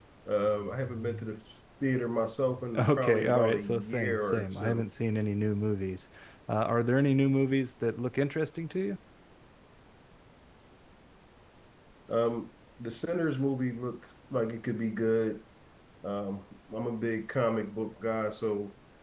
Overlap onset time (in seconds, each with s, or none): 2.8 s